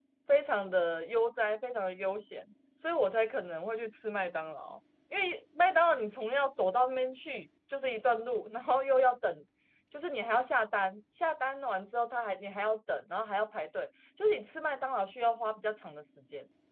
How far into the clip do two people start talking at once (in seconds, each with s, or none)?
none